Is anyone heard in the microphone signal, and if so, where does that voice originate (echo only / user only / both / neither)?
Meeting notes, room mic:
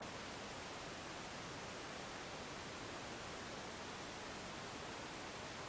neither